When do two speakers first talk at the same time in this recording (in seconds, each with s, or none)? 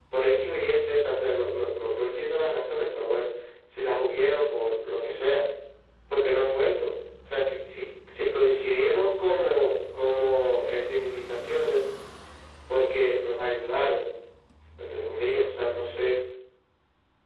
none